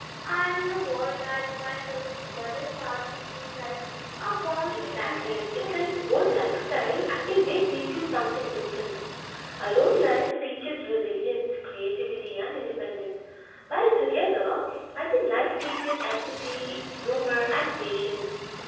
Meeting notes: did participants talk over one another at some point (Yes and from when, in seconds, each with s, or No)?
Yes, from 4.7 s